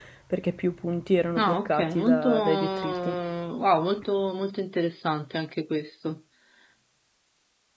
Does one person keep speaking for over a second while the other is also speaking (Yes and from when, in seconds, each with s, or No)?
Yes, from 1.4 s